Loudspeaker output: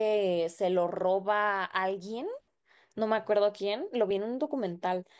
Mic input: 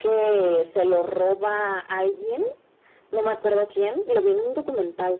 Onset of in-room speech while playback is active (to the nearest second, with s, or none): none